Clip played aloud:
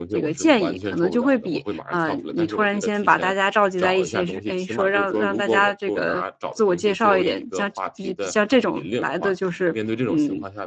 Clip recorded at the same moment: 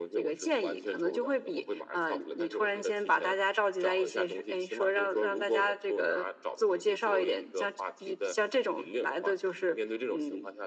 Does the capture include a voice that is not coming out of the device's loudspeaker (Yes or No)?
No